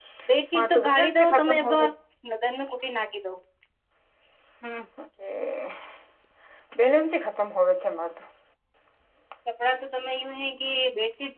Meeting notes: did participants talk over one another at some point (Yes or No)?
Yes